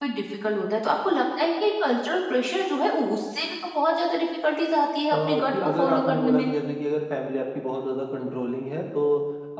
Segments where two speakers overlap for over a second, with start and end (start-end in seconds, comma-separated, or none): 5.1-6.5